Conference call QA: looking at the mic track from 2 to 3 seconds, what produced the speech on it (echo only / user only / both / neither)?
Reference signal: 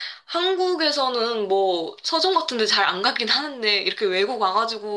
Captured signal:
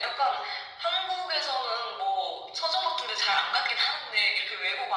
echo only